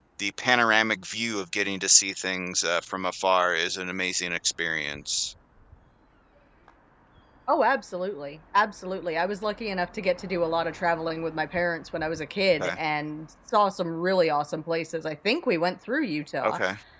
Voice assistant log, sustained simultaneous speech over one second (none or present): none